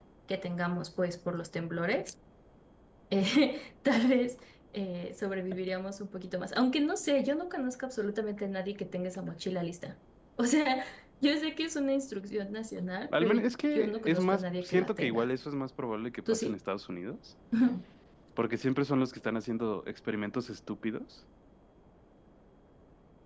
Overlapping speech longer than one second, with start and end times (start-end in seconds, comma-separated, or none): 13.8-15.3